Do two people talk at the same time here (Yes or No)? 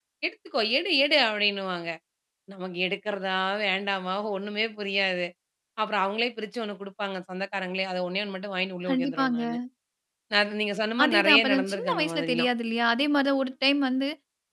Yes